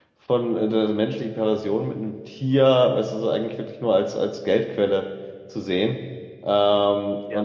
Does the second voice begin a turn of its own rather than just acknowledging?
No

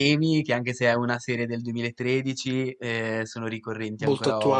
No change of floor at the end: No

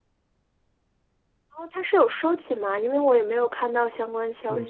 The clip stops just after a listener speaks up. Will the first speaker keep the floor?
No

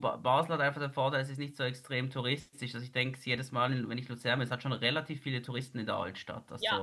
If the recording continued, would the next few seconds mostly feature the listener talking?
Yes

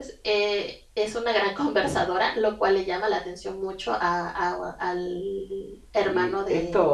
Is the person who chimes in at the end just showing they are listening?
No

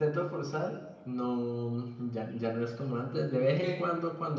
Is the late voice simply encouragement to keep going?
Yes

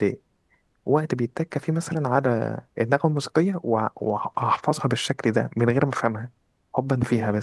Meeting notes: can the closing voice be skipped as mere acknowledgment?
No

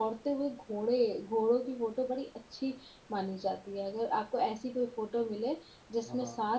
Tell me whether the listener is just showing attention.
Yes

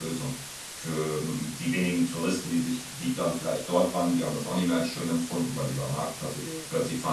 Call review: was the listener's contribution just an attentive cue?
Yes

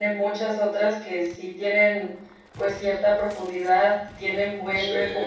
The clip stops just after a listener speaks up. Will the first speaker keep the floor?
Yes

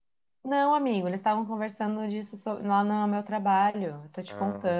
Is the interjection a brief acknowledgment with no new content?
No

